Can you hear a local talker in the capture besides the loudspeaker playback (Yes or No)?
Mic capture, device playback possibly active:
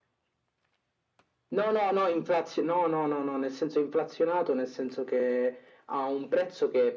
No